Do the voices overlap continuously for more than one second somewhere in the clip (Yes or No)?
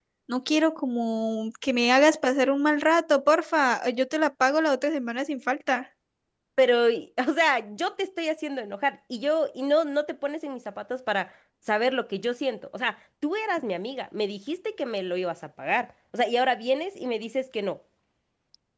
No